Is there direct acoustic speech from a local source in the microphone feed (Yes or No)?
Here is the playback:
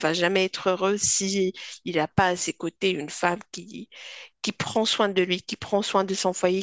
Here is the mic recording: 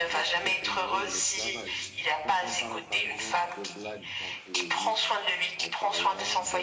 Yes